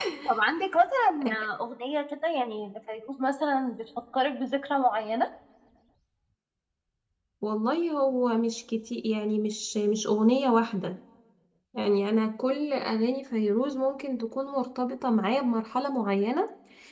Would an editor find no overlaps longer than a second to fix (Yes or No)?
Yes